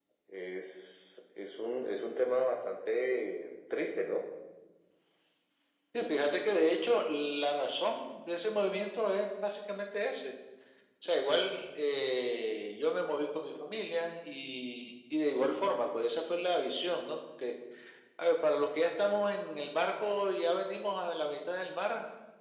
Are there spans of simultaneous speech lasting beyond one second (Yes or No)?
No